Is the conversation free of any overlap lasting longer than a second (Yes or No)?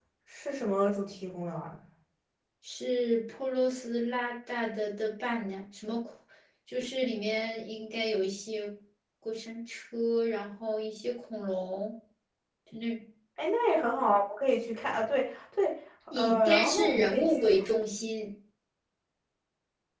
No